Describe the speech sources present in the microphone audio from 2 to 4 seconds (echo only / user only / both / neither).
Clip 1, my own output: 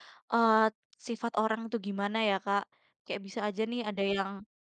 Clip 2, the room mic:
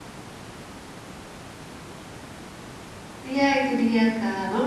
user only